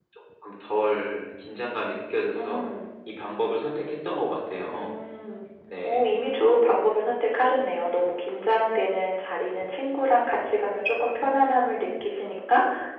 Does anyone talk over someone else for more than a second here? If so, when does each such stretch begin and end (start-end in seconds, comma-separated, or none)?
none